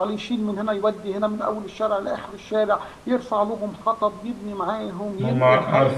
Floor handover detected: Yes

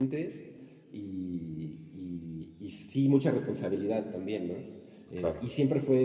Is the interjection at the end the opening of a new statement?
No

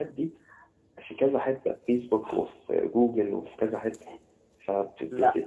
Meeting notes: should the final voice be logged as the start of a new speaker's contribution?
No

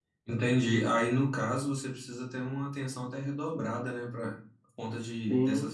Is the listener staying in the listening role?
Yes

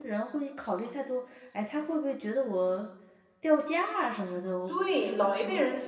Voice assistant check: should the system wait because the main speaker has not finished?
No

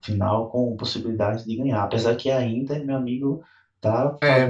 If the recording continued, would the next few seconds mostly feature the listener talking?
Yes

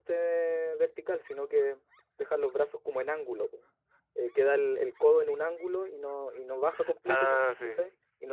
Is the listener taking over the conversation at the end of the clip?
No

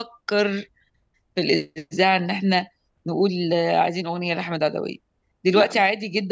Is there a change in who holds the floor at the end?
No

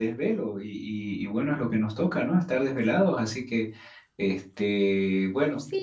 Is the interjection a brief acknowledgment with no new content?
No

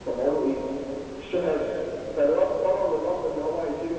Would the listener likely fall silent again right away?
Yes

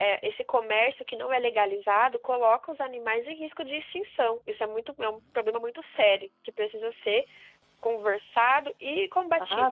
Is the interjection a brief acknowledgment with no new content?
No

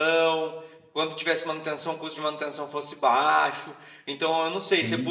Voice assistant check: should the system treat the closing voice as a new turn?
No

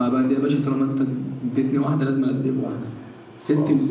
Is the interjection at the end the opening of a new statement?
No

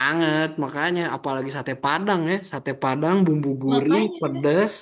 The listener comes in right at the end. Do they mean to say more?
No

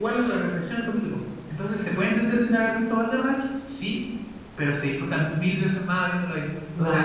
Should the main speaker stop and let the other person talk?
Yes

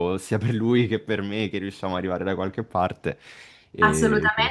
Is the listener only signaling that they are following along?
No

